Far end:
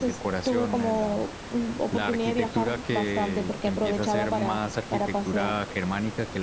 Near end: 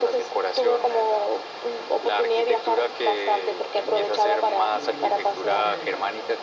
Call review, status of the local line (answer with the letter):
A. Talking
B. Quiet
A